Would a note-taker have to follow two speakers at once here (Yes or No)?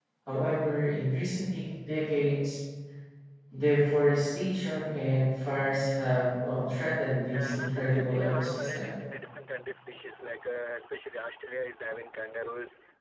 Yes